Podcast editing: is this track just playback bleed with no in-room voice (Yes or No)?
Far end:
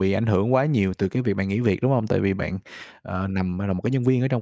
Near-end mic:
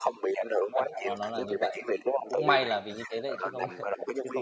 No